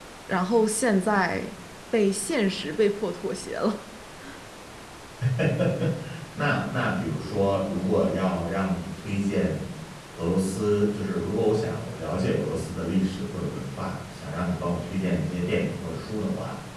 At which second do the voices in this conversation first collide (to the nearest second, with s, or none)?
none